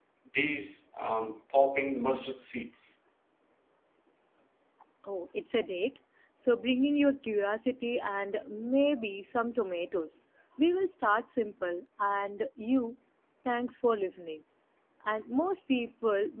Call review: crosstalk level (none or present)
none